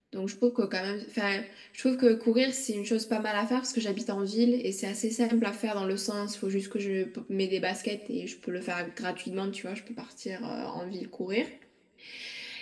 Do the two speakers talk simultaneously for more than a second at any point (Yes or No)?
No